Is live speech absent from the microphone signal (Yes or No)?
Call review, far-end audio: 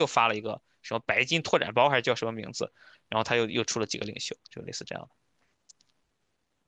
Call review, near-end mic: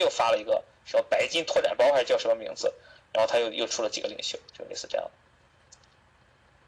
Yes